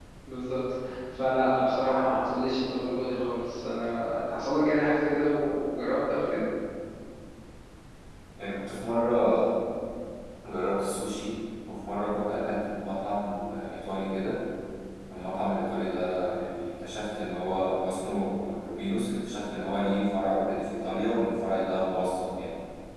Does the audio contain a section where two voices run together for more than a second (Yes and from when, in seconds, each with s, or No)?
No